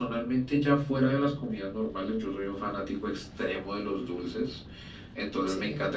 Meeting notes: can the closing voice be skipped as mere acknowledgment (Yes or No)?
Yes